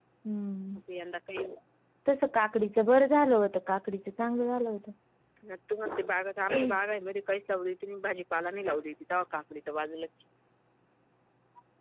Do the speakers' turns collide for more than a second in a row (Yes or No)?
No